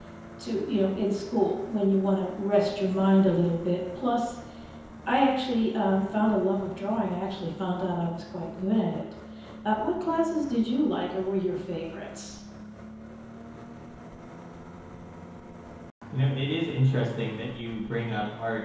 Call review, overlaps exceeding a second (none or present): none